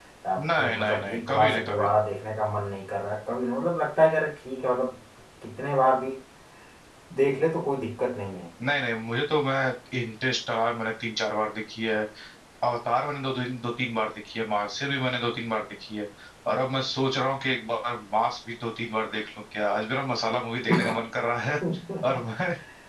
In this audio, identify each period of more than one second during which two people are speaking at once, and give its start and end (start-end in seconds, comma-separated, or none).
0.6-1.9